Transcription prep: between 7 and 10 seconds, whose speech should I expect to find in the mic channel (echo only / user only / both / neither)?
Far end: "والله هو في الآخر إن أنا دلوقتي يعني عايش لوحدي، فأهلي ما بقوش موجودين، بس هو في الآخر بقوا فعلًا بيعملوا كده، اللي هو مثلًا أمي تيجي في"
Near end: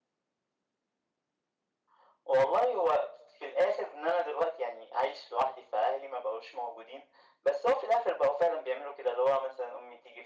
echo only